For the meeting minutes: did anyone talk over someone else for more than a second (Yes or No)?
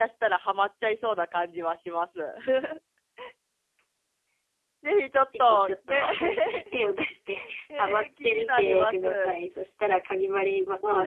Yes